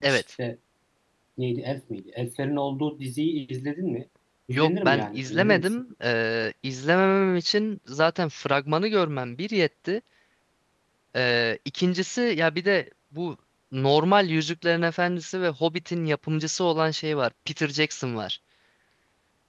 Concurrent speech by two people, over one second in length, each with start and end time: 4.5-5.8

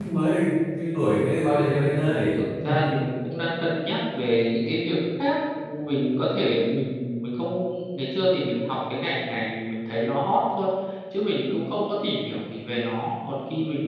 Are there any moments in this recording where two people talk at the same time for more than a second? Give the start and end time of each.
none

